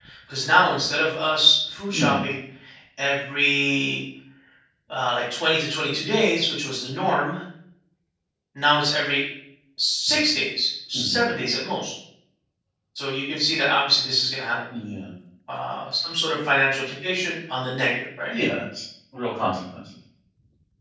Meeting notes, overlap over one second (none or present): none